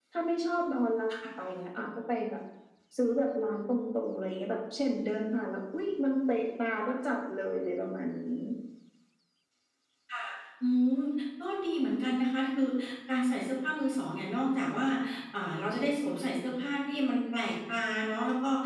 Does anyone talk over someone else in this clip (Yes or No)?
No